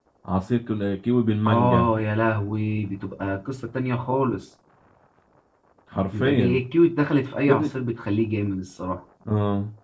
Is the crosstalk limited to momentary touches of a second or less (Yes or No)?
Yes